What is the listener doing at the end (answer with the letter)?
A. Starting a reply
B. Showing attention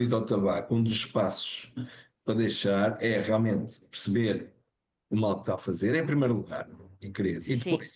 B